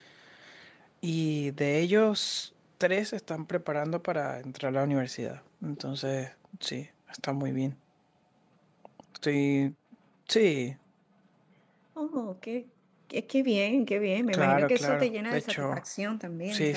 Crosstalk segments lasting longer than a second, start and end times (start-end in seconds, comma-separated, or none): 14.3-15.8